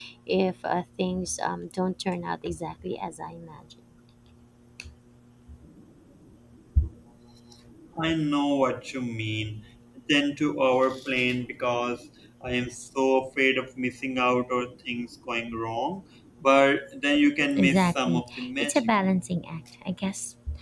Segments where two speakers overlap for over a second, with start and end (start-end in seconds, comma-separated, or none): 17.6-18.9